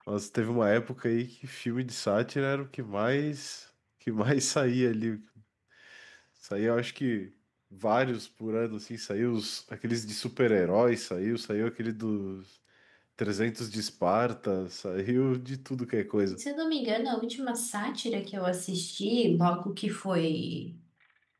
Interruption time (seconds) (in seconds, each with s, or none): none